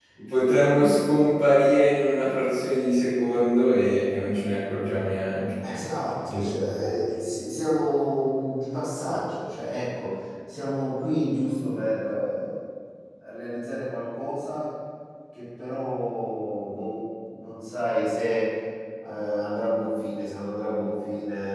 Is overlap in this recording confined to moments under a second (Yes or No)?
Yes